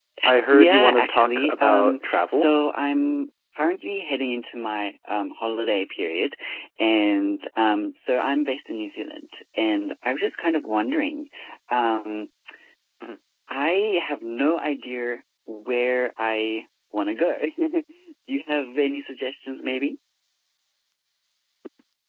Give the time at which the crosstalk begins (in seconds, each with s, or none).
0.5 s